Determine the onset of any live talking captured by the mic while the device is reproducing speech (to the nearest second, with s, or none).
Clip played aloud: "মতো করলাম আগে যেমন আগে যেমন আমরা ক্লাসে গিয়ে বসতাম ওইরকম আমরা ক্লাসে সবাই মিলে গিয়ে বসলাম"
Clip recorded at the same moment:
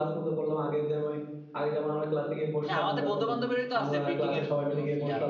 3 s